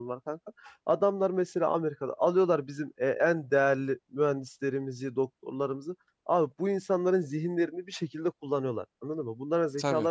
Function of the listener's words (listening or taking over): taking over